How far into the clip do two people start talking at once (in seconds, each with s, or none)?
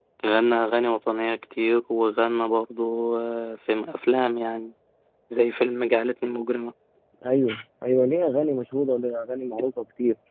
none